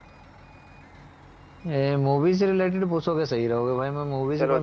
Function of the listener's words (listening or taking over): taking over